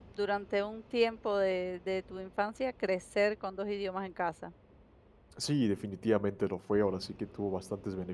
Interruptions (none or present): none